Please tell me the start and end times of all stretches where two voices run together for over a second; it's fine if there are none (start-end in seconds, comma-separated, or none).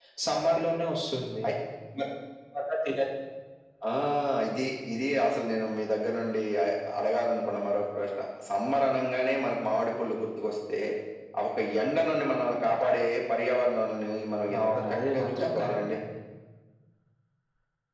14.6-16.0